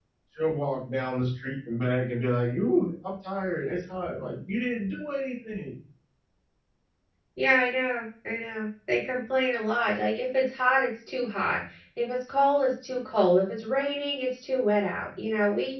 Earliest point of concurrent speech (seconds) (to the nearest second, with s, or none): none